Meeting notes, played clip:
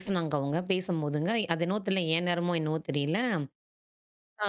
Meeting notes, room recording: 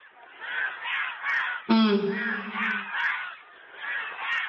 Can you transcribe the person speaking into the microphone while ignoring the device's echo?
ம்.

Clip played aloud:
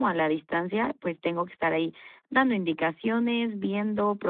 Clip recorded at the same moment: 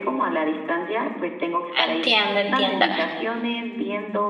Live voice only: Entiendo, entiendo.

